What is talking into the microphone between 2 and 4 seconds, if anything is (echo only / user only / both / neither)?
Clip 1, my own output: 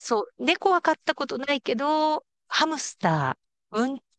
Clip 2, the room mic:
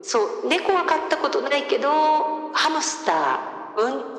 echo only